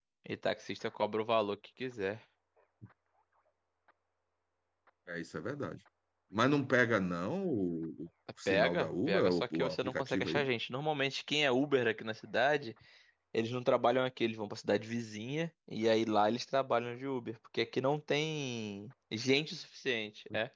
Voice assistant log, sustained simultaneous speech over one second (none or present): present